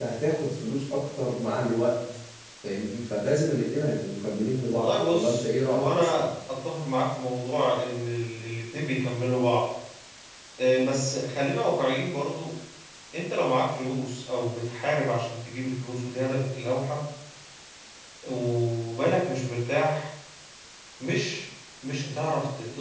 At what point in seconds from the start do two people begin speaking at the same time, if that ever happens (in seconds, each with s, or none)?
4.7 s